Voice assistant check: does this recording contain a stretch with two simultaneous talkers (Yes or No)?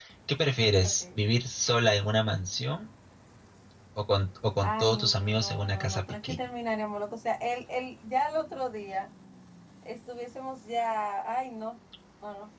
Yes